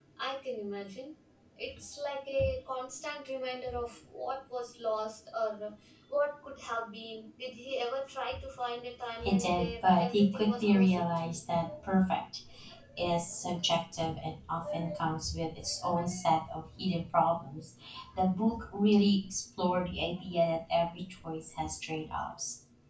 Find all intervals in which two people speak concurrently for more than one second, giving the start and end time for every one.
9.2-11.0

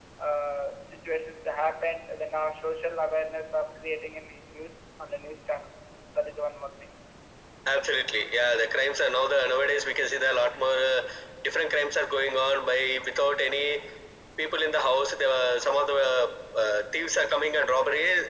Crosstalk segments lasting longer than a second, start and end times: none

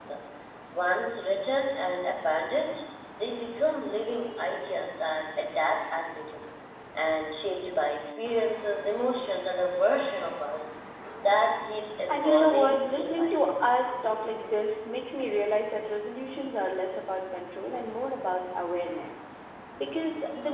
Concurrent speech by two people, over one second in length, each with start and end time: 12.1-13.4

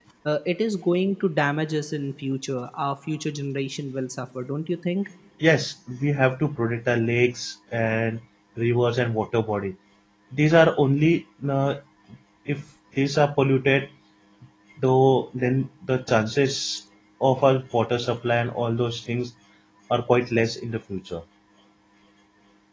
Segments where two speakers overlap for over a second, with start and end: none

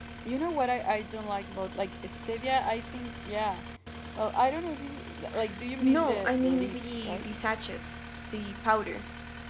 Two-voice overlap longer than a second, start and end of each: 5.8-7.3

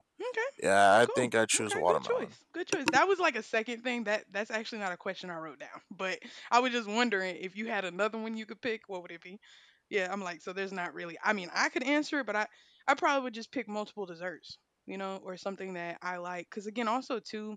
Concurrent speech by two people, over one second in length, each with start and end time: 1.0-2.3

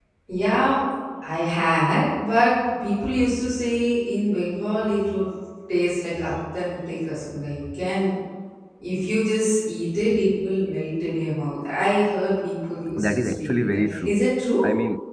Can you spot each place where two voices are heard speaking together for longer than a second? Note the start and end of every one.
13.0-14.2

